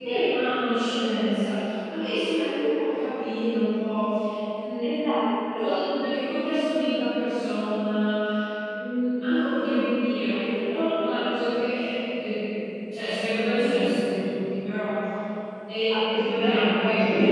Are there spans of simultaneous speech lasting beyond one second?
Yes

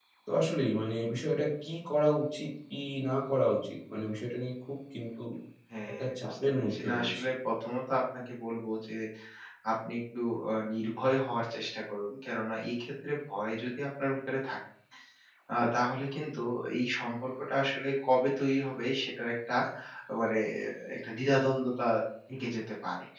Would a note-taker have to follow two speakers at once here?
Yes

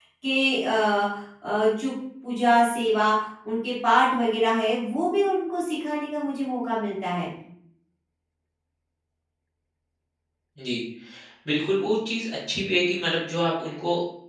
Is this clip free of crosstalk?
Yes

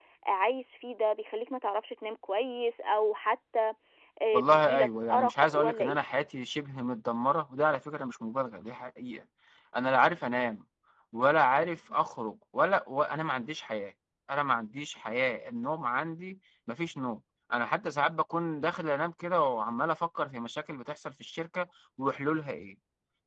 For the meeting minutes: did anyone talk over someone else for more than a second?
Yes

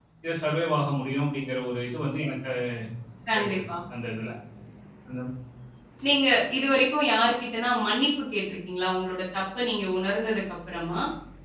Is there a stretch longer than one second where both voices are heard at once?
No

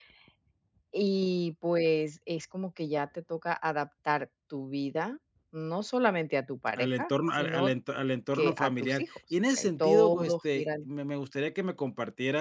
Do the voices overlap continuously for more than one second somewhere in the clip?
Yes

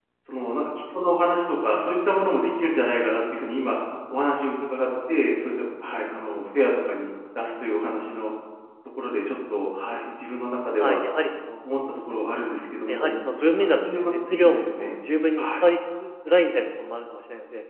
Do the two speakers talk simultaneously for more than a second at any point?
Yes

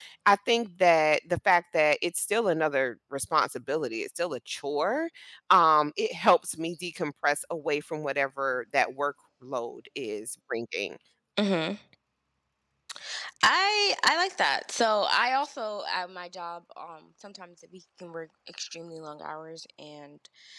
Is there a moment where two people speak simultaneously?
No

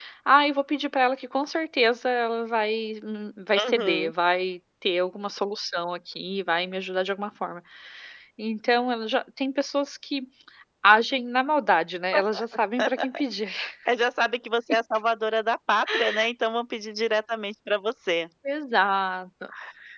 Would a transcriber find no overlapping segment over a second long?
Yes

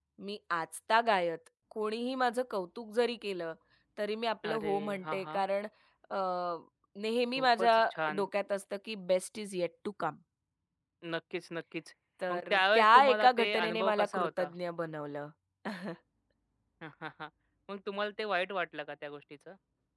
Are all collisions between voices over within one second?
No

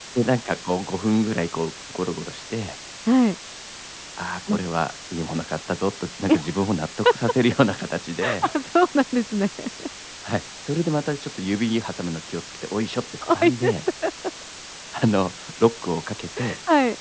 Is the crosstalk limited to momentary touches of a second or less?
Yes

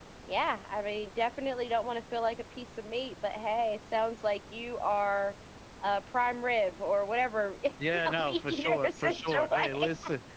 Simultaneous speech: Yes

